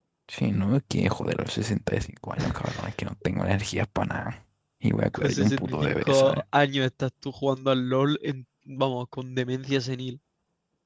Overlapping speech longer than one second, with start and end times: 5.1-6.4

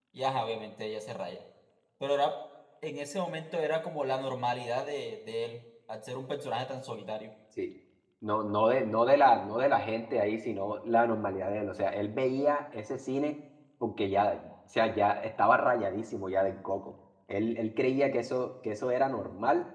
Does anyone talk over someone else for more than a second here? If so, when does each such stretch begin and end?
none

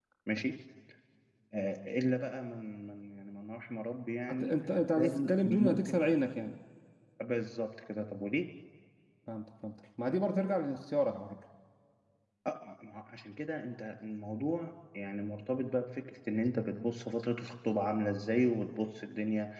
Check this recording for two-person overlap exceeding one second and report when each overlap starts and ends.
4.4-6.0

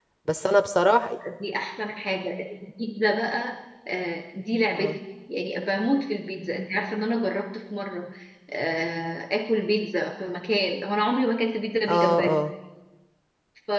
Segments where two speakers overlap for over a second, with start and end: none

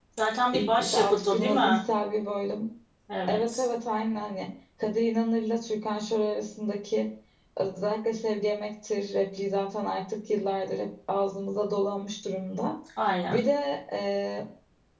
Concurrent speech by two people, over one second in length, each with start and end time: 0.5-1.8

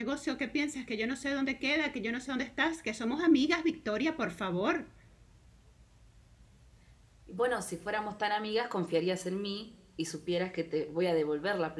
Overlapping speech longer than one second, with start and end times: none

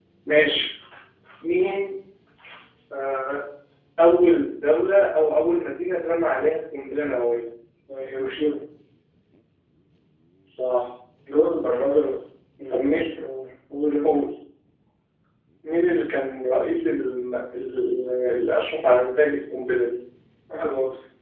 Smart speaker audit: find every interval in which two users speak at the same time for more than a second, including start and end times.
none

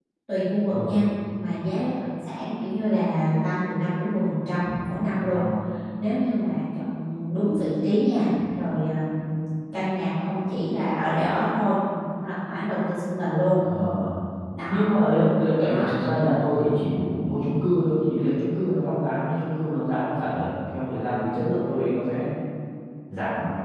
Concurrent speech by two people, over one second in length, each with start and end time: none

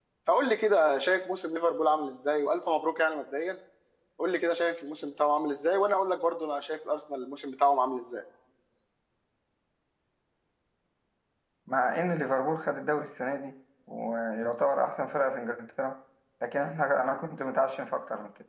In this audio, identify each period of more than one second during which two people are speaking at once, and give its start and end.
none

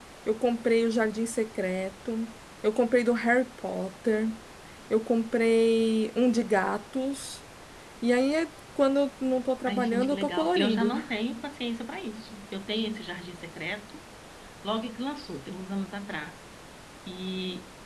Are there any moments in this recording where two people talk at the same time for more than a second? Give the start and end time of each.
9.7-10.9

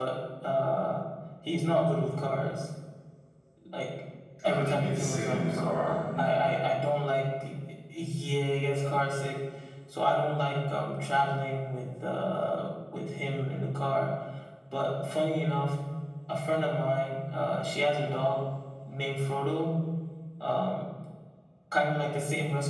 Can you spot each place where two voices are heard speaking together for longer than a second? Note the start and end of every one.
4.4-6.4

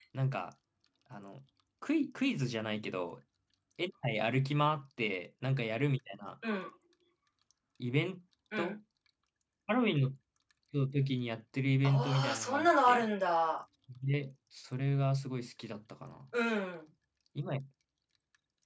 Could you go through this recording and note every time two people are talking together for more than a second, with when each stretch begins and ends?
11.8-13.1

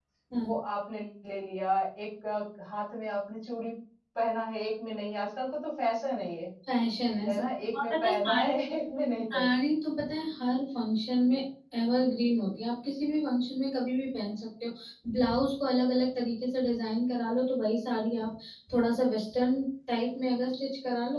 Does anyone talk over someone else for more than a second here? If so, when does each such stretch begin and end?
7.3-8.5

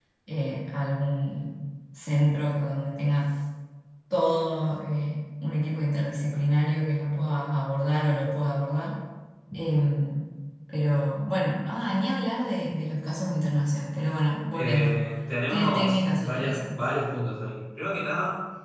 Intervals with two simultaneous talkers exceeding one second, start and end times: 15.5-16.7

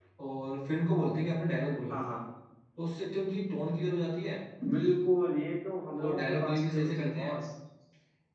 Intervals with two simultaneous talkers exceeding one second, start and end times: 6.0-7.3

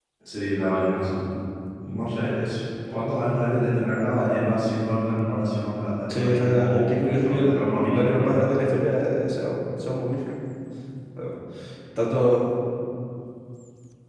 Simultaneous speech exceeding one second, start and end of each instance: 6.1-8.4

